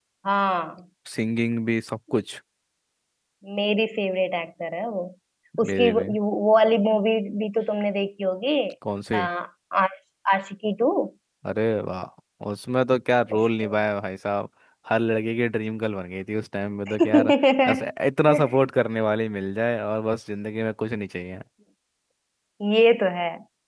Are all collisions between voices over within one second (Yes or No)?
Yes